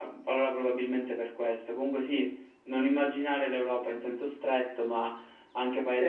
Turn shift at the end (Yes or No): No